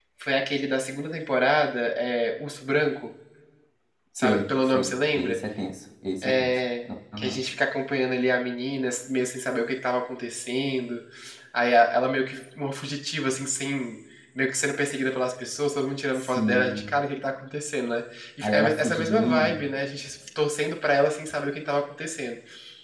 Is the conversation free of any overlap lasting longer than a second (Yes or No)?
No